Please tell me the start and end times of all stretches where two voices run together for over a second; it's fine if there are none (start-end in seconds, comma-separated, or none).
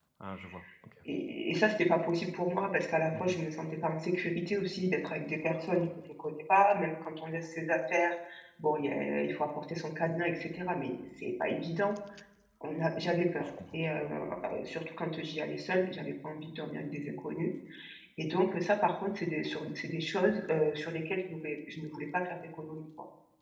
none